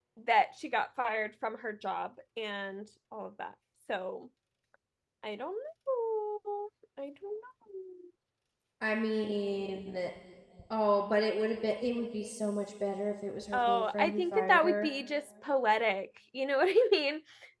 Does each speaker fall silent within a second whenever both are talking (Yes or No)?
No